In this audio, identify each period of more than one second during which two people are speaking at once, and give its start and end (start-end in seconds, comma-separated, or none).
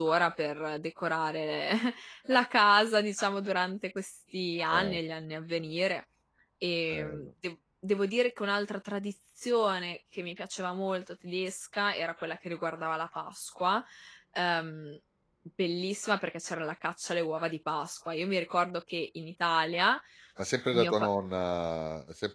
none